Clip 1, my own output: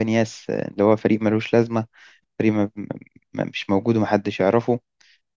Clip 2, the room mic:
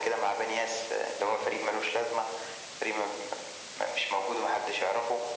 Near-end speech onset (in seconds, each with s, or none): none